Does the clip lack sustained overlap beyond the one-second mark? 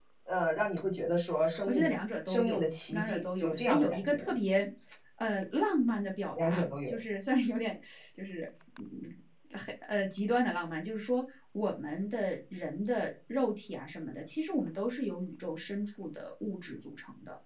No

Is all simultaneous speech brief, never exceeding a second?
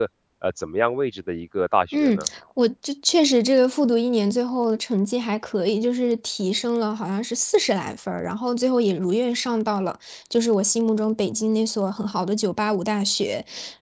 Yes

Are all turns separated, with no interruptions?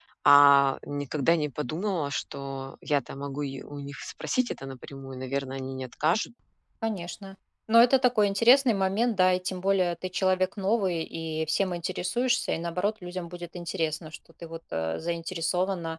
Yes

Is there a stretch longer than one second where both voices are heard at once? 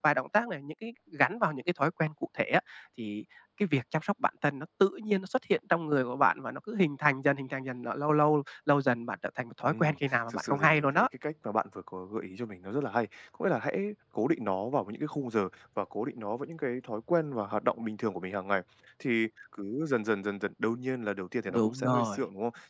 Yes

